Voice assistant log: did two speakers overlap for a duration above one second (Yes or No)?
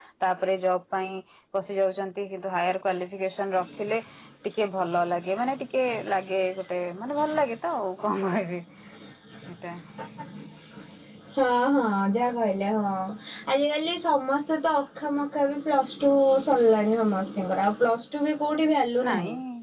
No